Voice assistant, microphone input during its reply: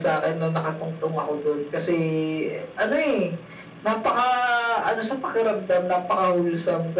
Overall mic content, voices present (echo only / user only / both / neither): echo only